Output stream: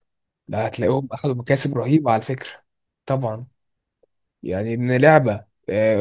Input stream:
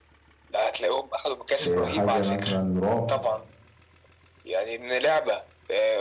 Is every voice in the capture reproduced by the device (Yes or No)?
No